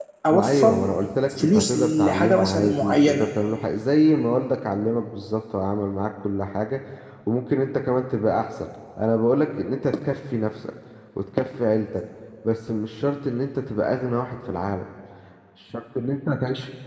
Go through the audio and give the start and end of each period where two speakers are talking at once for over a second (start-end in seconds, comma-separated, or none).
1.4-3.3